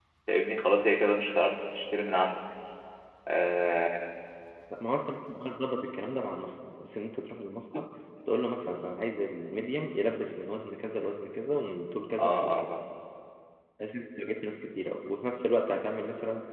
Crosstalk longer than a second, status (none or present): none